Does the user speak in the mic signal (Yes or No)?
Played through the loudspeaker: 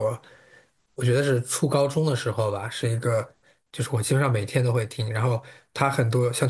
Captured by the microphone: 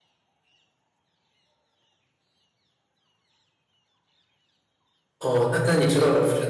Yes